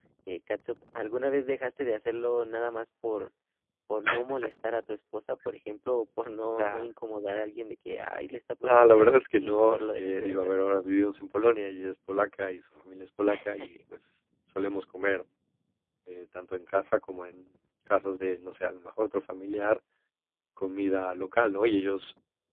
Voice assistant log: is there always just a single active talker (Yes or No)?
No